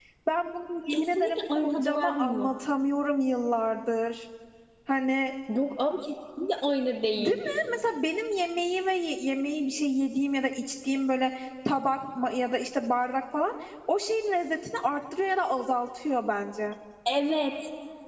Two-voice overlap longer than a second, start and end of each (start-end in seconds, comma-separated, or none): 0.9-2.5